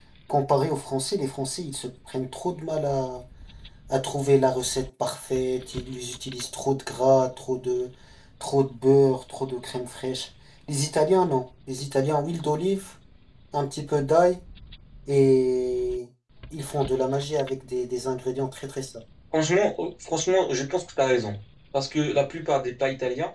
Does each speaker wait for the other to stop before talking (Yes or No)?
Yes